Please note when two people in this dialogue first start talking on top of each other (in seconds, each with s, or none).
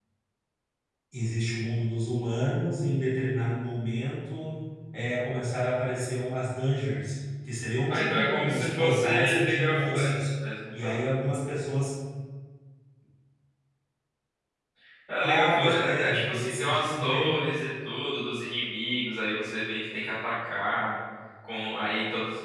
7.9 s